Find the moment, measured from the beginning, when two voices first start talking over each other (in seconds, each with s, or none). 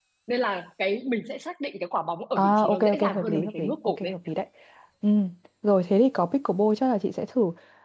2.4 s